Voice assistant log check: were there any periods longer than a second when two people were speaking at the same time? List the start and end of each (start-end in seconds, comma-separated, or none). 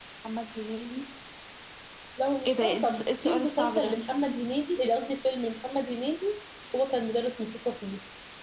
2.5-3.9